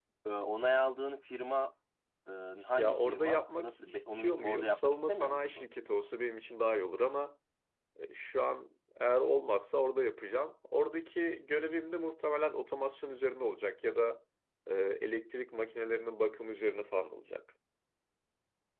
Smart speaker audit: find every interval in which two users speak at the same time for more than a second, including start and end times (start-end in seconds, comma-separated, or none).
2.8-5.7